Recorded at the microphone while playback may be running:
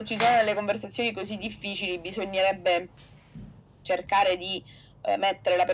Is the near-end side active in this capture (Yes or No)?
No